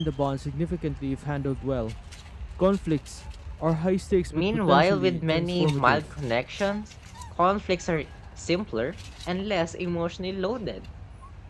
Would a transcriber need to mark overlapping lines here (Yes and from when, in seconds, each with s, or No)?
Yes, from 4.3 s